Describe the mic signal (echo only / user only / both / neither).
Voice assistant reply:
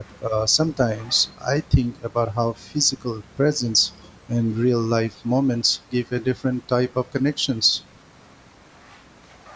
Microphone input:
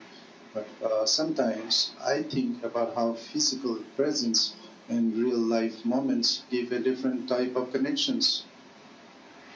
echo only